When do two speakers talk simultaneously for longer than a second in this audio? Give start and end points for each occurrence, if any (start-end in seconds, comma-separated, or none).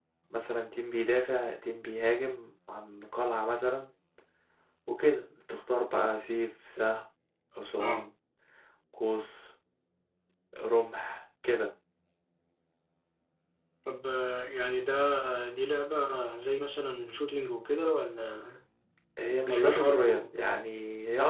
19.5-20.7